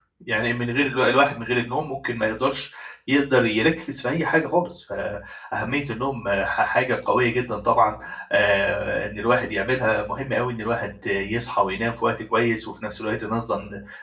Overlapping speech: No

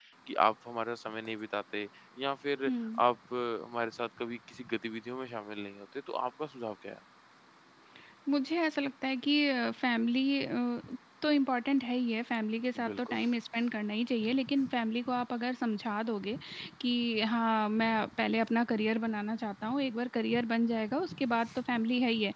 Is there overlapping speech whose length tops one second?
No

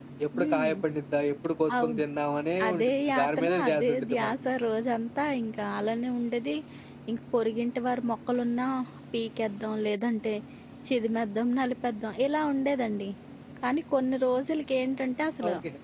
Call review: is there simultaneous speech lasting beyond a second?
Yes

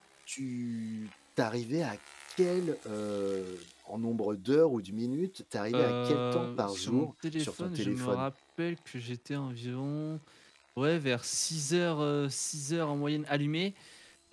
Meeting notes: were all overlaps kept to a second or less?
No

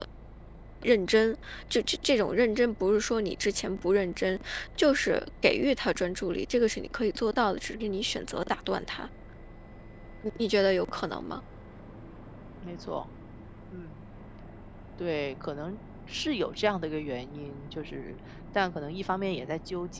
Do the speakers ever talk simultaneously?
No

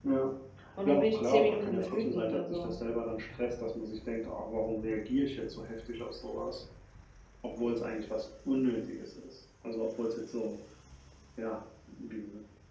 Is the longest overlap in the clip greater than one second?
Yes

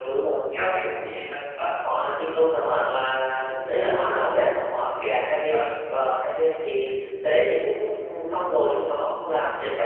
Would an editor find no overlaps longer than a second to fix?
Yes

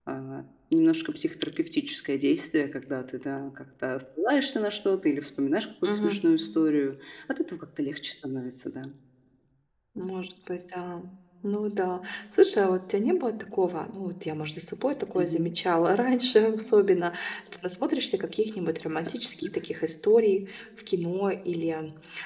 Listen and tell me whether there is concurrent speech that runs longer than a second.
No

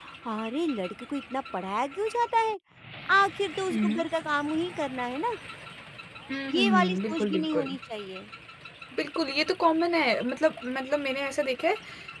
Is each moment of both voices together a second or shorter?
No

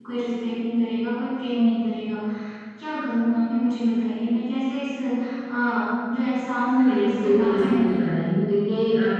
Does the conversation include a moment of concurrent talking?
Yes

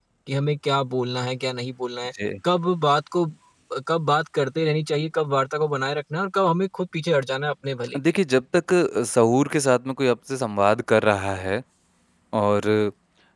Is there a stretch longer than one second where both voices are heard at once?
No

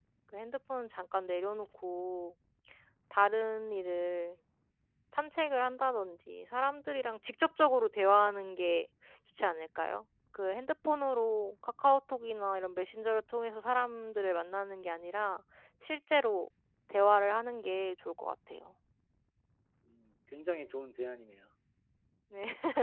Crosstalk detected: No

